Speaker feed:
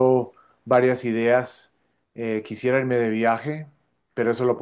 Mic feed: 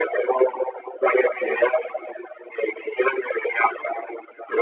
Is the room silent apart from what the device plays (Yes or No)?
Yes